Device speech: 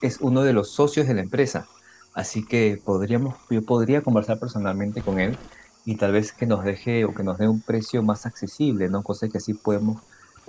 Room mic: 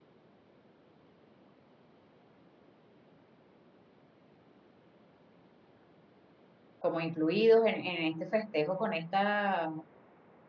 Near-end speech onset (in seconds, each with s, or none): 6.8 s